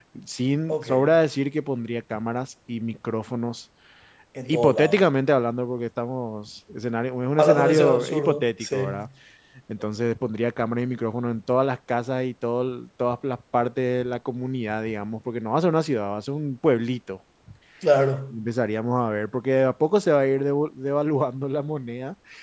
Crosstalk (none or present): present